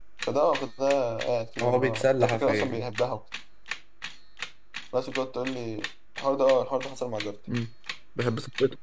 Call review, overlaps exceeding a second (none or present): present